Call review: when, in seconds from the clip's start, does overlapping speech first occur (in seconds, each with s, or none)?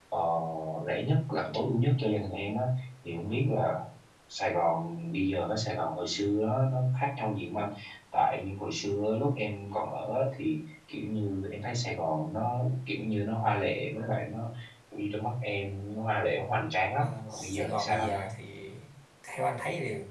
17.0 s